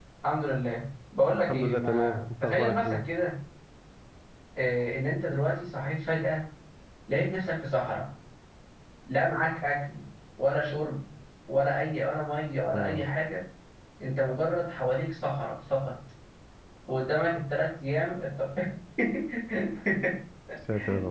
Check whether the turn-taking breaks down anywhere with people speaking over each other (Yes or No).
Yes